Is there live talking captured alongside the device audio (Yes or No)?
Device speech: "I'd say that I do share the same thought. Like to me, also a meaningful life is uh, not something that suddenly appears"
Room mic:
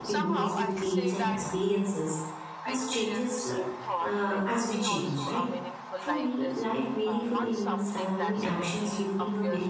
Yes